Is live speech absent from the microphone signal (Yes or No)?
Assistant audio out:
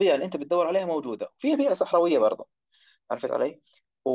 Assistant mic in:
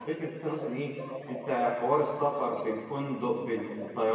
No